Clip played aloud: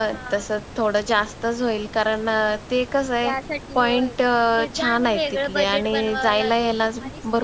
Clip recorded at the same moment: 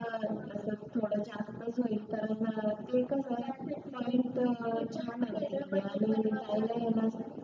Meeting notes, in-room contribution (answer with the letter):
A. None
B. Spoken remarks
A